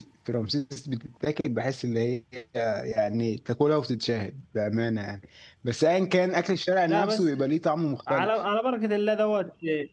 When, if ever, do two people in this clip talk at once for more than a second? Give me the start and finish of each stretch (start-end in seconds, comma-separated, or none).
none